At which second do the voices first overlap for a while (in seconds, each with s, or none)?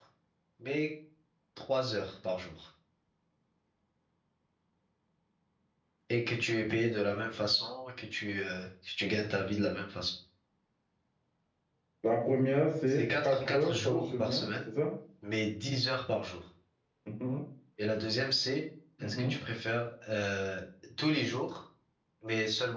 12.9 s